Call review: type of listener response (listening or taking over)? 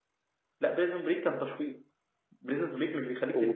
listening